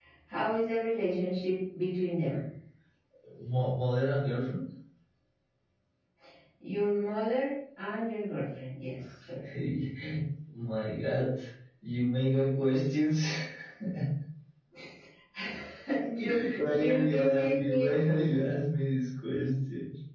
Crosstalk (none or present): present